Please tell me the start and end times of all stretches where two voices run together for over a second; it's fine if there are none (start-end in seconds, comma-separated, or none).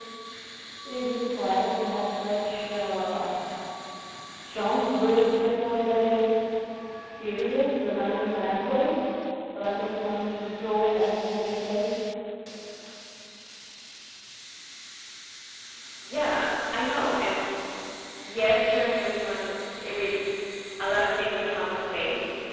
none